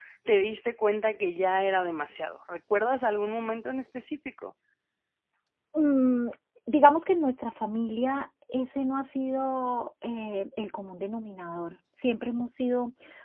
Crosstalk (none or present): none